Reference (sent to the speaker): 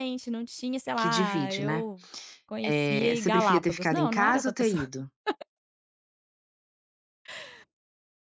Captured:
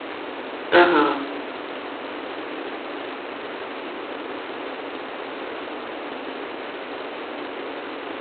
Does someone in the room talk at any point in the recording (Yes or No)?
Yes